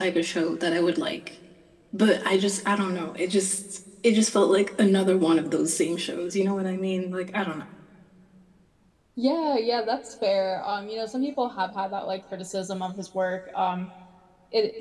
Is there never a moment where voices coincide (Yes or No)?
Yes